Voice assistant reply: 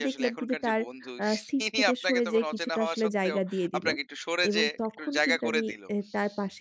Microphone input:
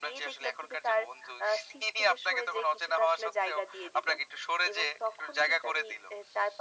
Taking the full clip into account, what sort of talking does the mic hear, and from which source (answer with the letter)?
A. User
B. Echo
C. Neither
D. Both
B